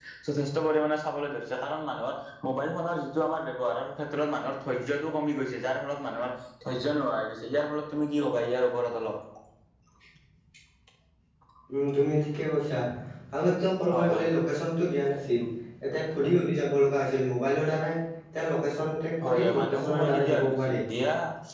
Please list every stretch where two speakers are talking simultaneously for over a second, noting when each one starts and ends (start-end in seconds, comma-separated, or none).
19.2-20.8